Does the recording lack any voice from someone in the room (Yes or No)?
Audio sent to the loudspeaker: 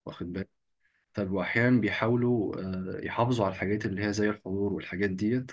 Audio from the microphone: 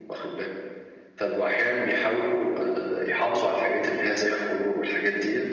Yes